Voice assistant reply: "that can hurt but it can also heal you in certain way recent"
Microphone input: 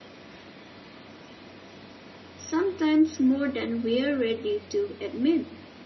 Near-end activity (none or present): present